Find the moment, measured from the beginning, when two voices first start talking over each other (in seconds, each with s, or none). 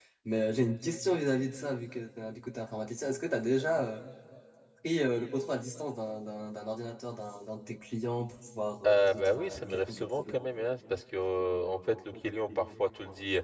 8.8 s